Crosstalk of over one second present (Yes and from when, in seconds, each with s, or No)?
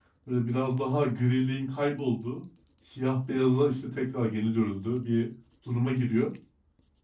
No